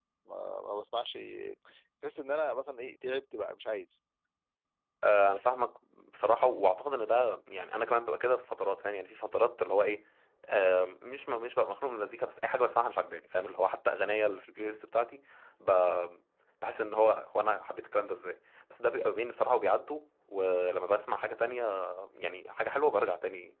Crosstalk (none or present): none